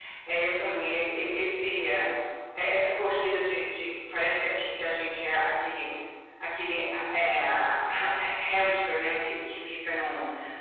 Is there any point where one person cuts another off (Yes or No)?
No